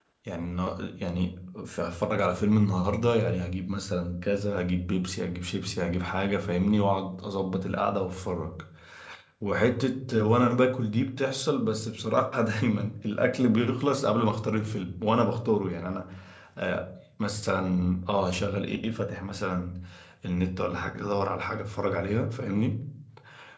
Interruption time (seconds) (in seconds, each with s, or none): none